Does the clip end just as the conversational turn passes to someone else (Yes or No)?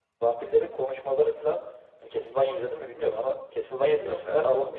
No